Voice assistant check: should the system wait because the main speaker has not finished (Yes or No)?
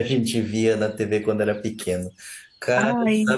Yes